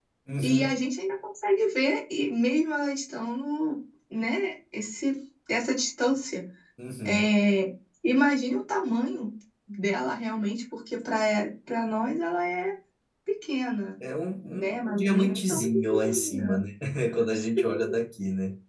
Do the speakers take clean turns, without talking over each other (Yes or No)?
No